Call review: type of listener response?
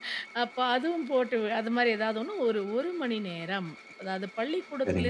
listening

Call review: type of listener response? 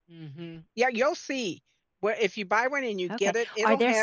taking over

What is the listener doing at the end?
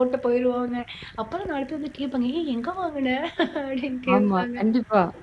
taking over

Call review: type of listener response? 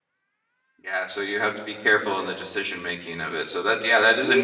listening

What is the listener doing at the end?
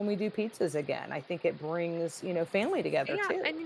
taking over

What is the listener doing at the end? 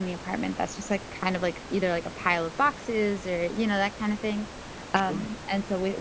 listening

